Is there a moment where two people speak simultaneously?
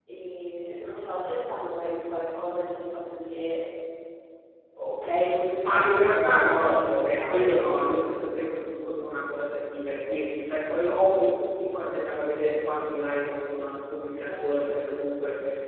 Yes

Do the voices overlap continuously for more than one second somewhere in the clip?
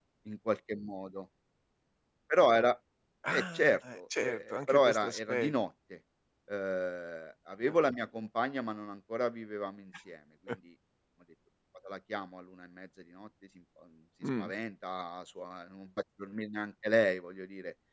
Yes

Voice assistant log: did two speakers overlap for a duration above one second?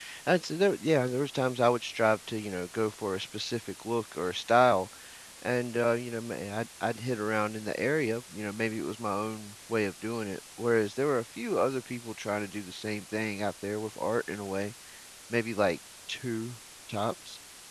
No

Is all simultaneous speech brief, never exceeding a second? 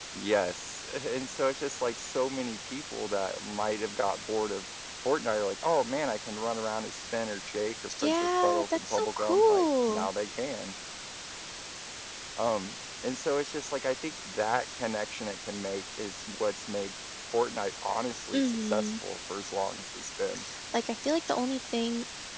No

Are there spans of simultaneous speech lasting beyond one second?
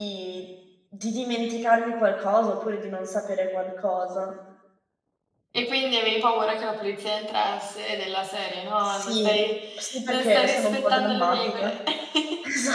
Yes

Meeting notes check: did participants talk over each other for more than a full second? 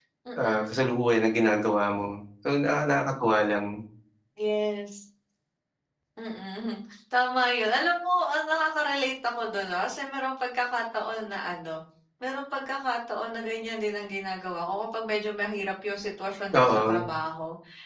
No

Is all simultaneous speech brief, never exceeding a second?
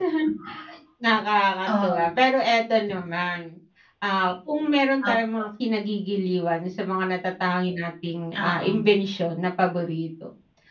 Yes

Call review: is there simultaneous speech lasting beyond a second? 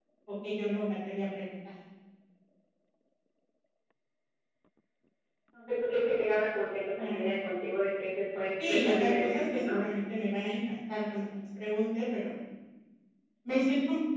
Yes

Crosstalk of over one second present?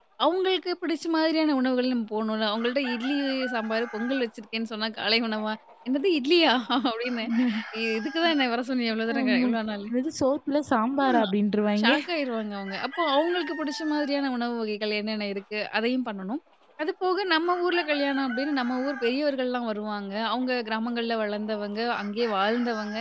No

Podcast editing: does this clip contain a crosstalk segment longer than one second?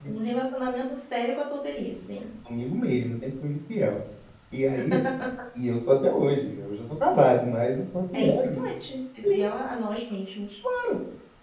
No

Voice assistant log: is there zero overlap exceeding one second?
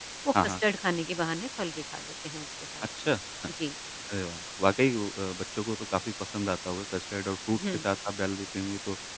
Yes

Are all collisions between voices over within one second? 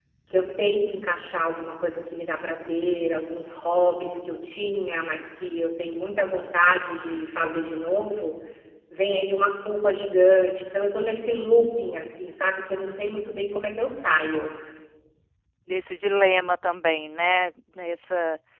Yes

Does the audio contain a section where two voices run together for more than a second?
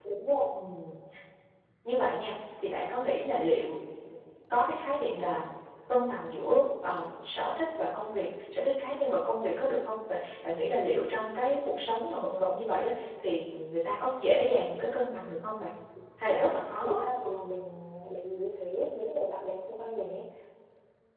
No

